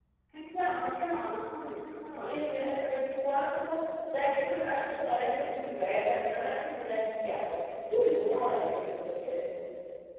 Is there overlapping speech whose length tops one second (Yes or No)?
No